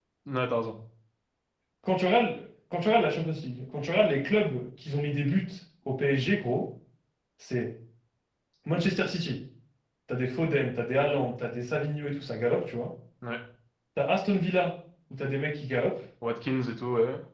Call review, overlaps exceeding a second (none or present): none